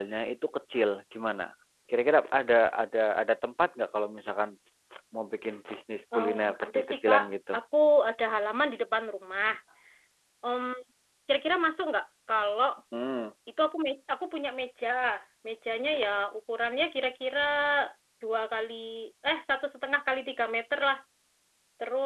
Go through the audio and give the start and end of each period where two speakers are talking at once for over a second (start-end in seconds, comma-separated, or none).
6.2-7.5